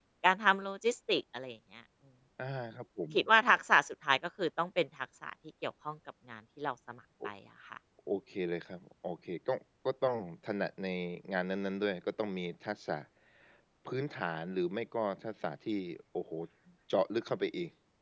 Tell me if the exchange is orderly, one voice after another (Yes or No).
Yes